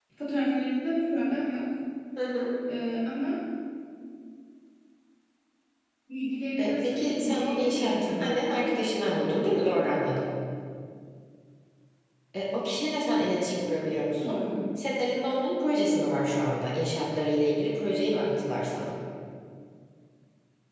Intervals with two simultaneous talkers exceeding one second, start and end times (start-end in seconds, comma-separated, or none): 6.6-8.3